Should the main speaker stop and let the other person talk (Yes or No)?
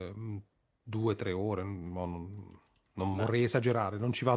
No